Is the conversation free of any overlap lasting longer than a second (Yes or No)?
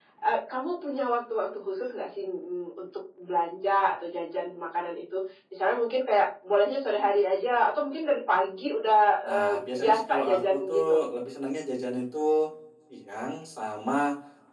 No